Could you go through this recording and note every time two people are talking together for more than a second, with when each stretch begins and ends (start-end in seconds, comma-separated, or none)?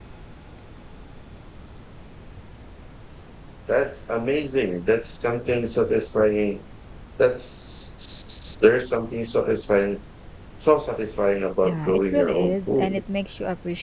11.6-13.0